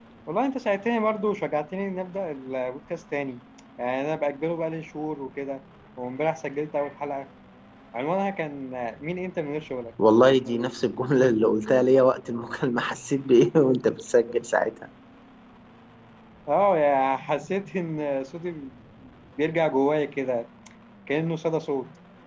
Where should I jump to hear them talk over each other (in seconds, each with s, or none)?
none